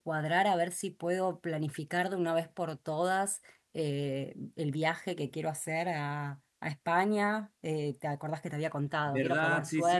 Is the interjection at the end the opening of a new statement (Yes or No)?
Yes